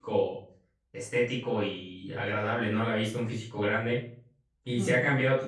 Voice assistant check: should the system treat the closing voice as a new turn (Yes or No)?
No